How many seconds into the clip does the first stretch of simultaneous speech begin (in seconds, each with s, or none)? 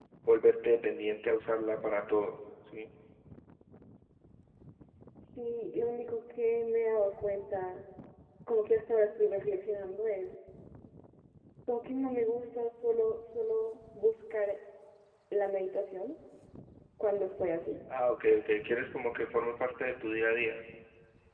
none